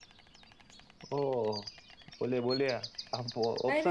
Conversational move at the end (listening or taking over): taking over